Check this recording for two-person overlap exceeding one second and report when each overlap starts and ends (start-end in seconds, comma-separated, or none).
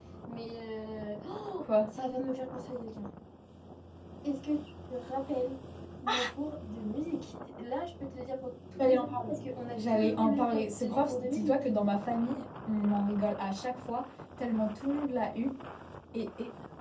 9.8-11.6